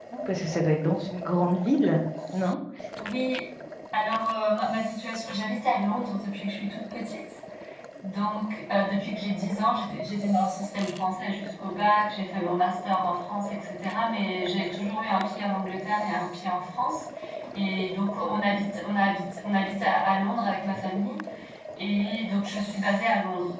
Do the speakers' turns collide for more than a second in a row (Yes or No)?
No